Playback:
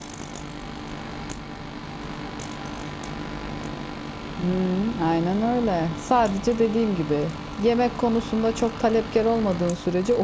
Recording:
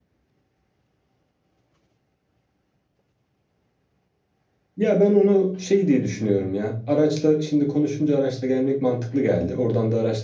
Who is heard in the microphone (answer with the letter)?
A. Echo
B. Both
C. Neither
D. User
D